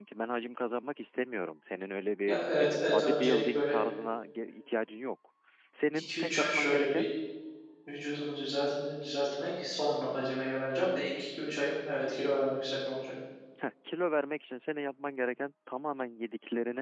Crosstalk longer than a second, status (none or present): present